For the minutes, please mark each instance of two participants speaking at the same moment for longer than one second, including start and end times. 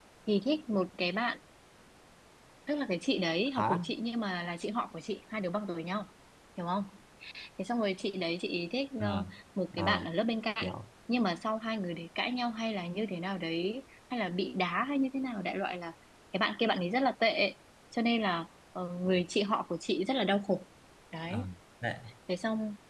none

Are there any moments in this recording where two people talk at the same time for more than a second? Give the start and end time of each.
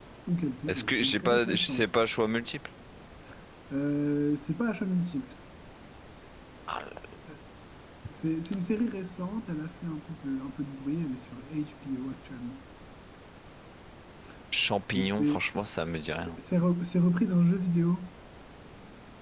0.7-1.9

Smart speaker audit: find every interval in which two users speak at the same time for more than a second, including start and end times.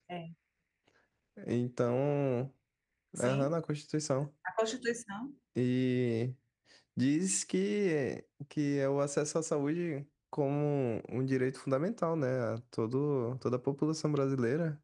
none

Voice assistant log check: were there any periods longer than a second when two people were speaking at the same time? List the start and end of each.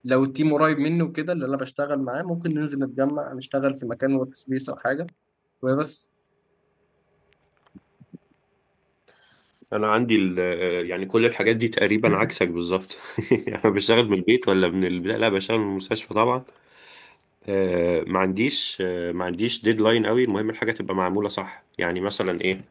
none

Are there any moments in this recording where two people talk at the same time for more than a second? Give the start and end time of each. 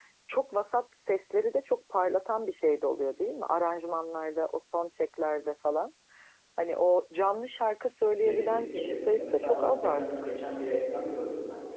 8.2-10.0

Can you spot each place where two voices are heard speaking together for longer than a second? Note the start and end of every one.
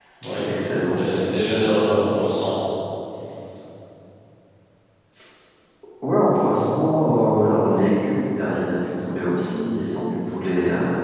none

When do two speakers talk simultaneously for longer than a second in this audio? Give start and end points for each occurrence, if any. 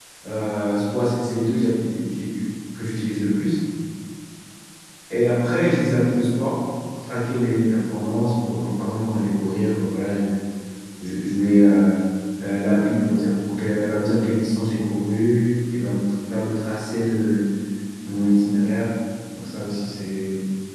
none

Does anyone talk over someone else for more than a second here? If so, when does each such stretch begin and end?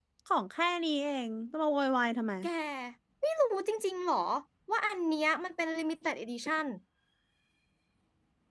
none

